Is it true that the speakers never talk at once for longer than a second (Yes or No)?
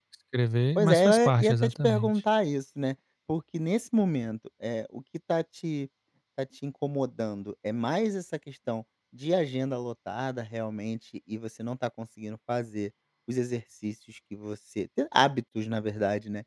No